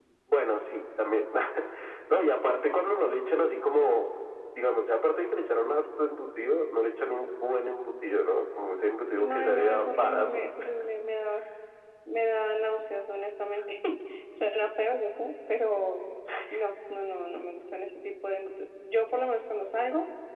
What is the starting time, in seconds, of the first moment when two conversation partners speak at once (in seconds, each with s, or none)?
9.2 s